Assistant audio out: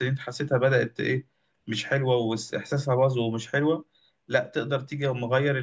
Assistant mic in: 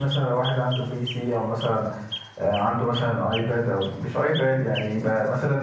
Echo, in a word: none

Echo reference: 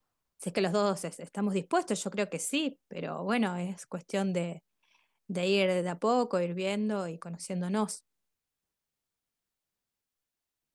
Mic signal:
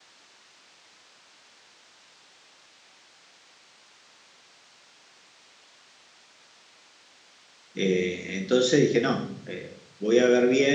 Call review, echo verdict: none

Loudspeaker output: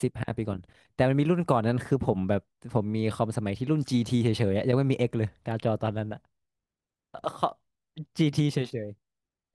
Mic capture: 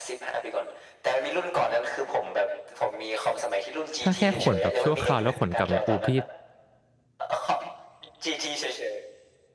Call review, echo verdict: present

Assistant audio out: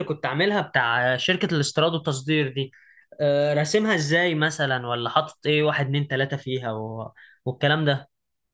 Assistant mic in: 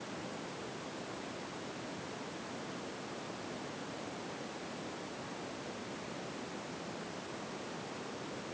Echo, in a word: none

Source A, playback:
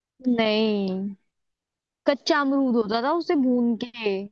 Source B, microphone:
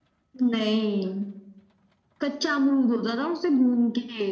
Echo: present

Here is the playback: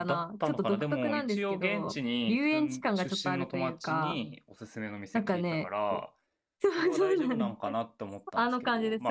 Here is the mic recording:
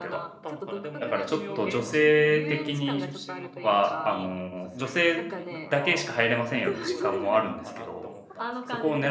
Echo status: present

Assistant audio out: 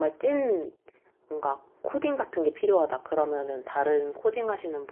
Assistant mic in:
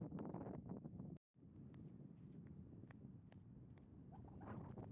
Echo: none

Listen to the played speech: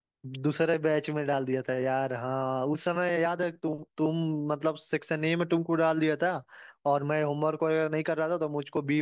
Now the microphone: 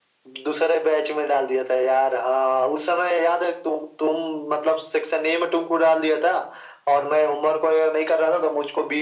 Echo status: present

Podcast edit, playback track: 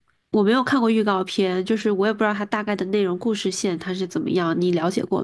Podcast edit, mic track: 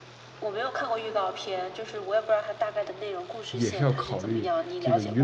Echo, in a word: present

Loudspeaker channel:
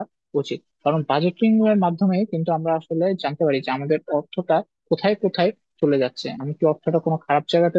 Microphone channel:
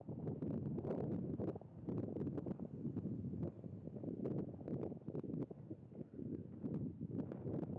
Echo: none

